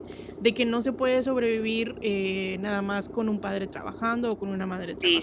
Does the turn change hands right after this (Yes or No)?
Yes